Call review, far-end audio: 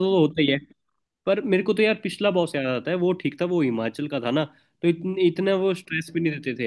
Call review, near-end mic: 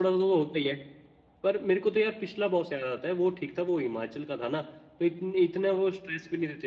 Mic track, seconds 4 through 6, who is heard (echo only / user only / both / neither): echo only